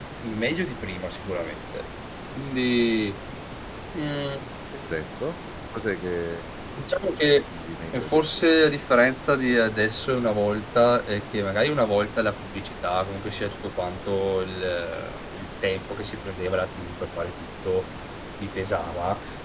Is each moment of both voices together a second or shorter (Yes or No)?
Yes